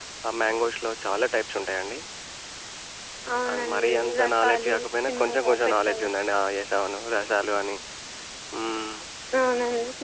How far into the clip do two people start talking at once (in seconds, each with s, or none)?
3.7 s